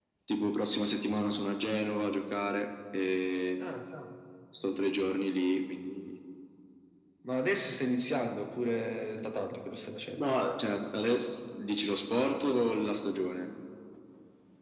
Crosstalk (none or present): none